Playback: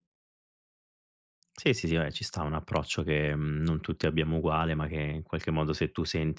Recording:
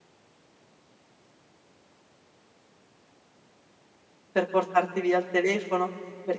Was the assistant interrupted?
Yes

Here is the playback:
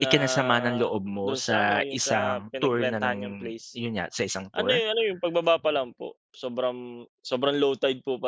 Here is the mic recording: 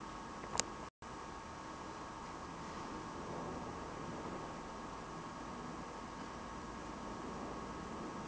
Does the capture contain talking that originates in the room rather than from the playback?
No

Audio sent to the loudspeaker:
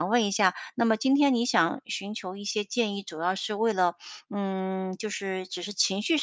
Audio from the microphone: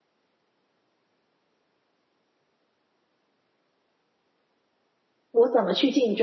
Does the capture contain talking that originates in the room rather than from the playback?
Yes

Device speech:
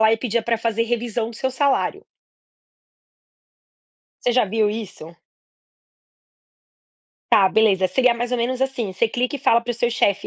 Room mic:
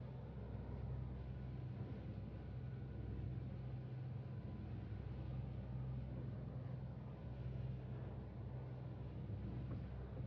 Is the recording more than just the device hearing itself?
No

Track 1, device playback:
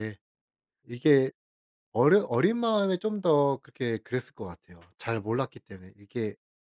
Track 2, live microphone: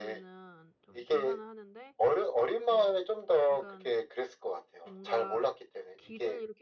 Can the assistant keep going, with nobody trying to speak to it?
No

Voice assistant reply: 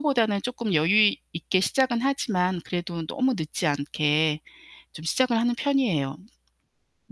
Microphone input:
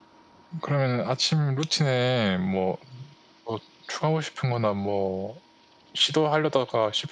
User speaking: Yes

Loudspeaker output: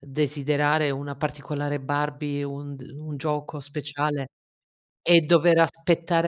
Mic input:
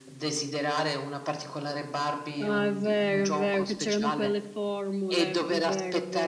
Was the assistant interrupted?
Yes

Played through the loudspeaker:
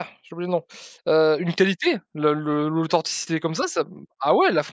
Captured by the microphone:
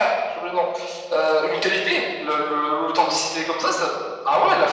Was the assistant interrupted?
No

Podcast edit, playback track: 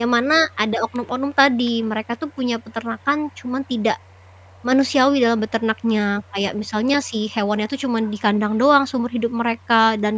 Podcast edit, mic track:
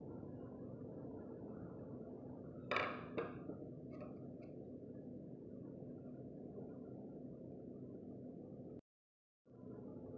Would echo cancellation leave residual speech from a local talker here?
No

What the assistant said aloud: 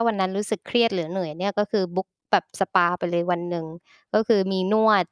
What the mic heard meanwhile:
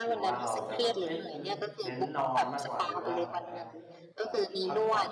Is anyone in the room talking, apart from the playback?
Yes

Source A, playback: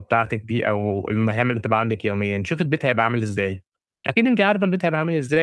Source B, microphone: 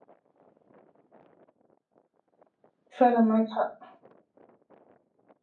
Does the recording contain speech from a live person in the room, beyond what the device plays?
Yes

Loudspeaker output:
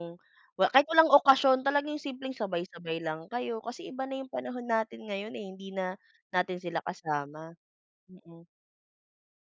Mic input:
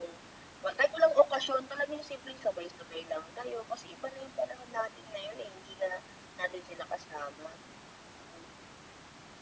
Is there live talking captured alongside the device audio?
No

